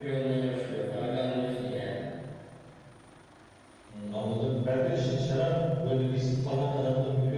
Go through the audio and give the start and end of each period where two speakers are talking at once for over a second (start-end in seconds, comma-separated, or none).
none